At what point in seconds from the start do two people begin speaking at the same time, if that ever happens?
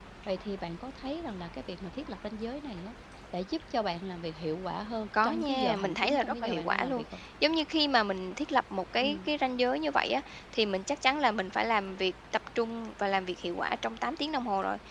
5.2 s

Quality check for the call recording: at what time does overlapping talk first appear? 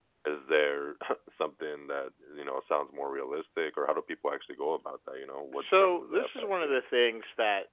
5.5 s

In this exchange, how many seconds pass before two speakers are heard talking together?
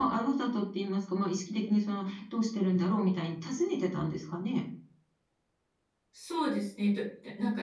none

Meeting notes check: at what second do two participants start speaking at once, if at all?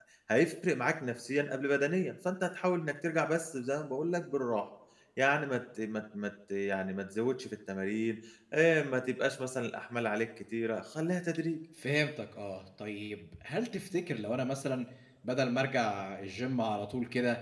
none

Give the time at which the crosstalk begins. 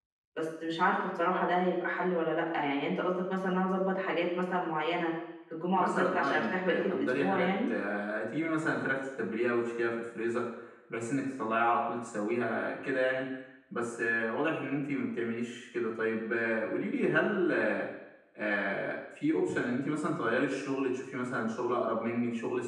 5.8 s

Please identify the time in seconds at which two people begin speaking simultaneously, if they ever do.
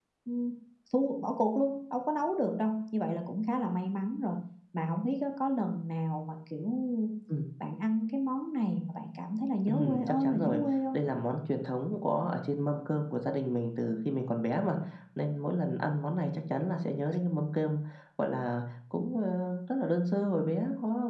9.7 s

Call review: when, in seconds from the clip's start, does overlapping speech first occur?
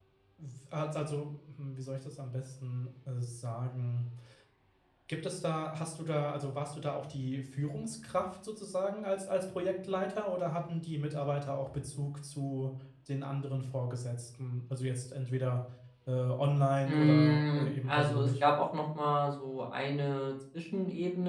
16.9 s

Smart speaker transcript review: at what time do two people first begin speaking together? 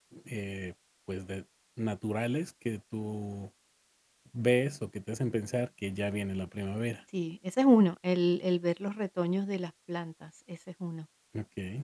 none

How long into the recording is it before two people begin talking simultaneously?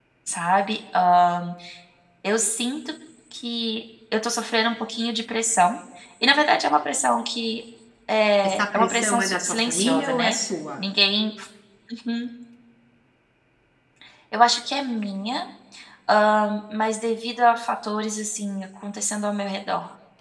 8.4 s

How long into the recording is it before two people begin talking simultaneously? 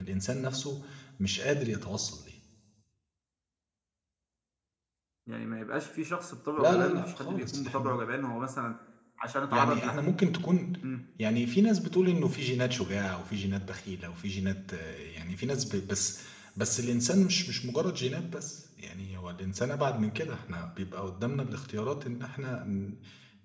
6.6 s

